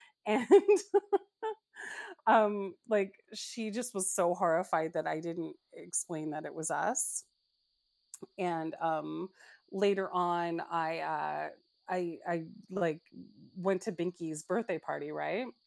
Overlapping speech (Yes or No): No